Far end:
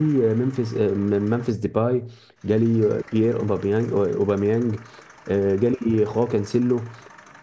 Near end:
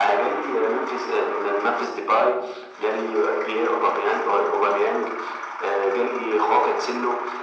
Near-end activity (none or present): none